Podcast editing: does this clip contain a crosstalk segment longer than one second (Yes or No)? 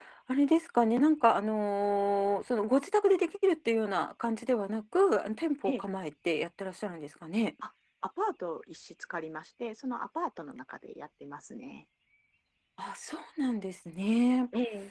No